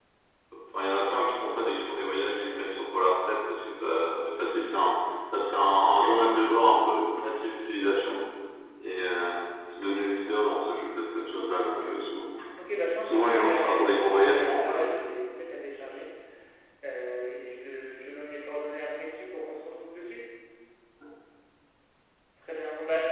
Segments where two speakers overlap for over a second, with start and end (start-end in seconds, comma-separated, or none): 13.0-15.0